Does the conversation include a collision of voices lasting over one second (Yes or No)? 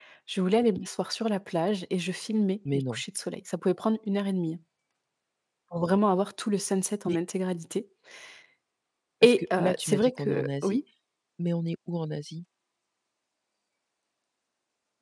Yes